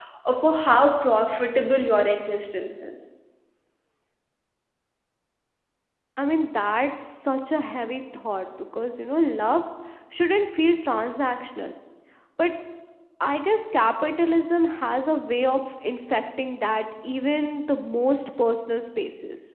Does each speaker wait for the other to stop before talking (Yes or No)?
Yes